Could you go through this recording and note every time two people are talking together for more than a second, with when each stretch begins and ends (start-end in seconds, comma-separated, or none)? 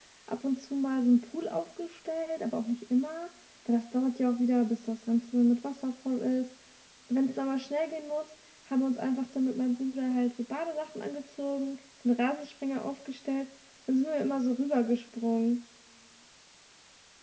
none